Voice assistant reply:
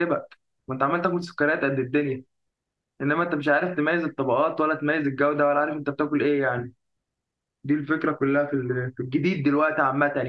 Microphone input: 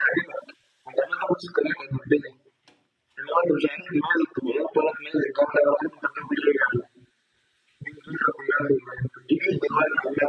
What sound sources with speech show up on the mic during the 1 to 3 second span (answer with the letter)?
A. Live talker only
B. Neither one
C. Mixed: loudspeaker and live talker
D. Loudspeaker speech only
D